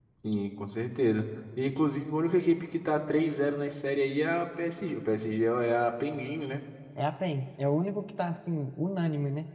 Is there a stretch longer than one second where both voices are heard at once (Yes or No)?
No